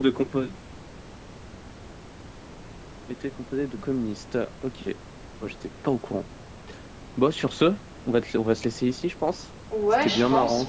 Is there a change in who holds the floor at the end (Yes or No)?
Yes